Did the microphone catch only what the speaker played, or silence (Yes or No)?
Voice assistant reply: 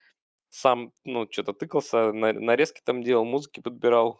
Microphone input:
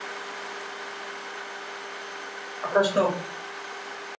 No